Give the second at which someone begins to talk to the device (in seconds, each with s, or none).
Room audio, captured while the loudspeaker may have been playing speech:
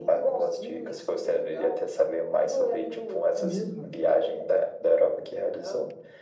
3.4 s